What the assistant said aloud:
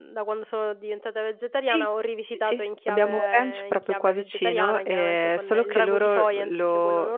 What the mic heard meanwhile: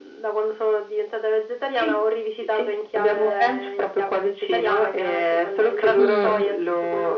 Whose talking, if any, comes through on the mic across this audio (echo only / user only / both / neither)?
both